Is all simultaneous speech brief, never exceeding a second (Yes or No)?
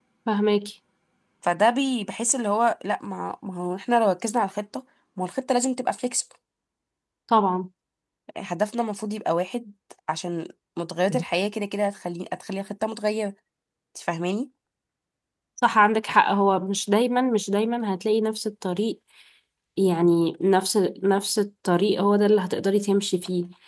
Yes